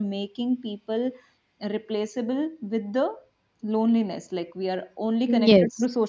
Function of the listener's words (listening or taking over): listening